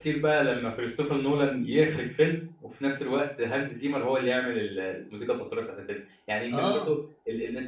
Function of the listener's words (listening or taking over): listening